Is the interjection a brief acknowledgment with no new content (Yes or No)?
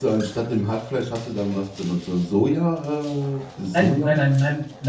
No